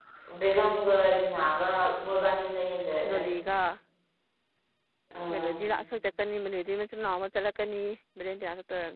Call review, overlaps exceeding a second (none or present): none